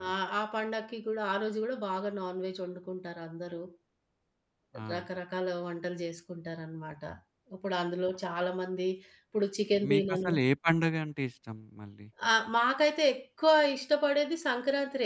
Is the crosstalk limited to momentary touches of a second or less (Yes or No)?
Yes